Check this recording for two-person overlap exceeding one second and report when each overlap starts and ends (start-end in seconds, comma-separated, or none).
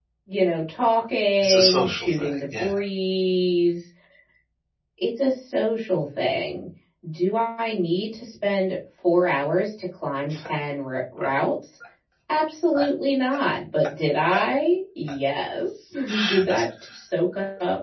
1.4-2.7